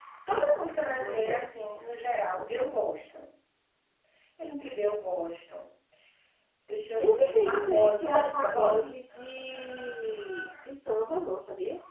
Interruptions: present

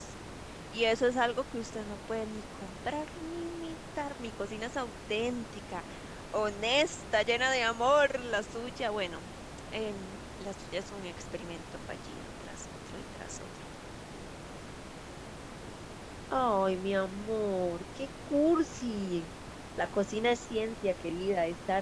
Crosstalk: none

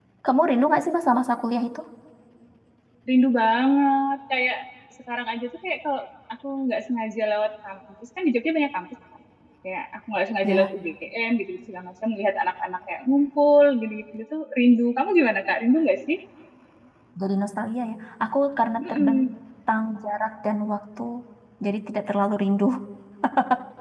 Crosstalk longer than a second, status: none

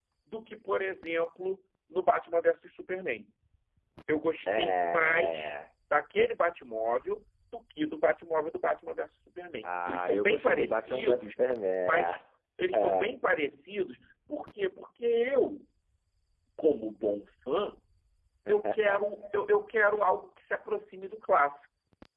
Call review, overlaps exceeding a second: present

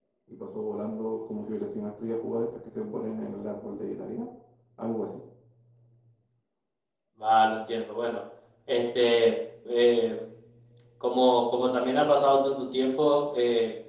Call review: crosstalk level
none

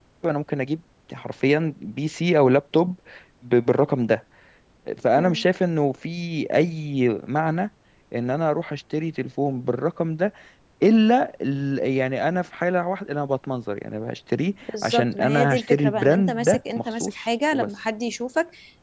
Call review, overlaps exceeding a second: present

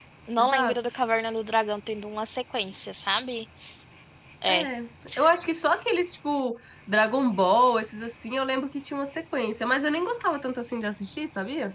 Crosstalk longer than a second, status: none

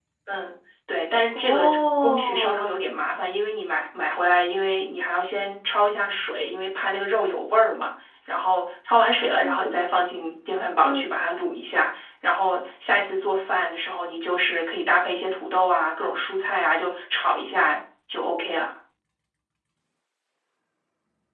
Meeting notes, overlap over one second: present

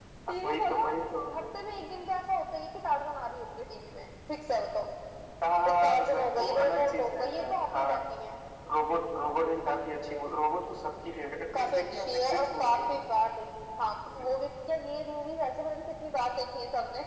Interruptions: present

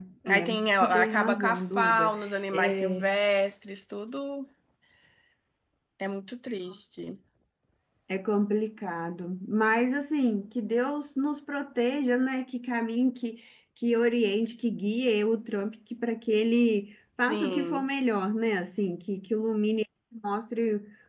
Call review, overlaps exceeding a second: present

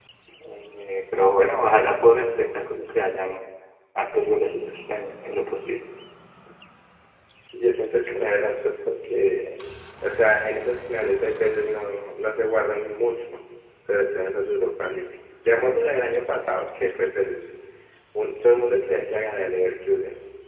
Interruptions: none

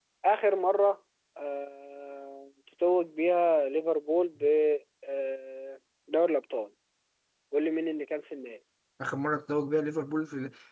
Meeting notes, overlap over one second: none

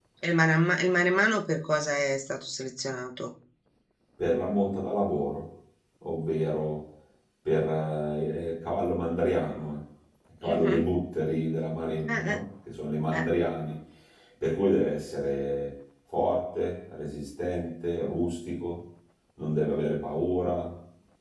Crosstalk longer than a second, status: none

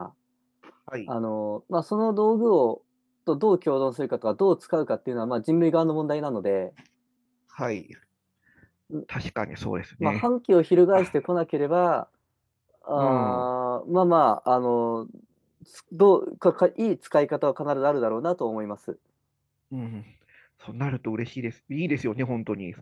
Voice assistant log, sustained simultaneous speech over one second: none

